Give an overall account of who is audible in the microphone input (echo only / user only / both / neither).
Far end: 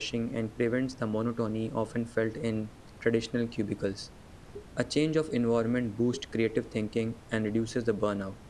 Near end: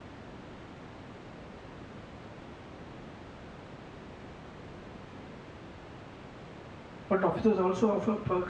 user only